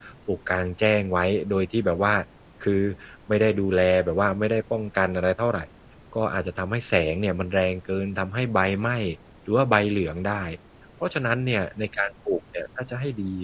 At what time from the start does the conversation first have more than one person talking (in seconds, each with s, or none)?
none